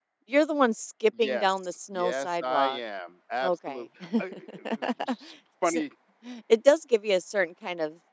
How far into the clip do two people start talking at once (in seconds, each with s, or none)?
1.2 s